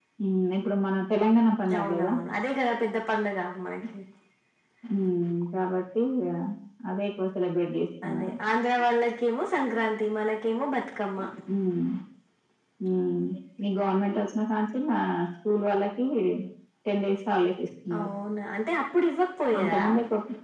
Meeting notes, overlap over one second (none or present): none